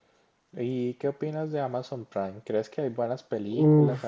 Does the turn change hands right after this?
Yes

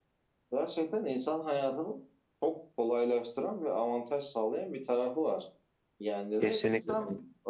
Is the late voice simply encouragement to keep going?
Yes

